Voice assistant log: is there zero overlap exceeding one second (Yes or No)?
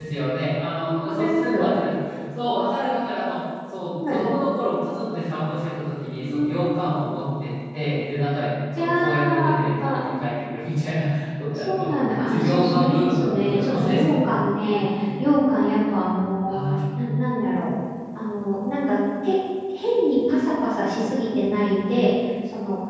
No